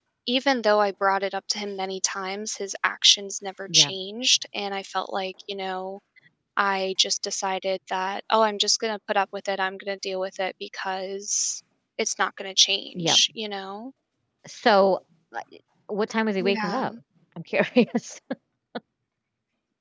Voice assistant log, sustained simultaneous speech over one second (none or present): none